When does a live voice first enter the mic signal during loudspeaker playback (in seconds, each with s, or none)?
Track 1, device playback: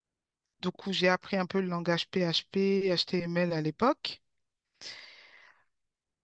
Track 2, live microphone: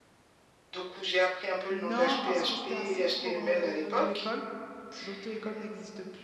1.7 s